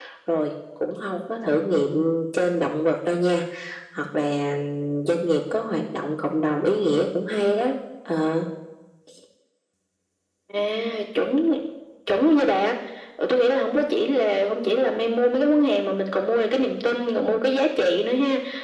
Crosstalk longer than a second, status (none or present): none